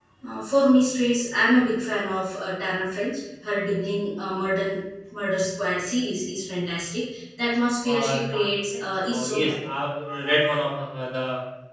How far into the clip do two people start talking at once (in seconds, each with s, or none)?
7.8 s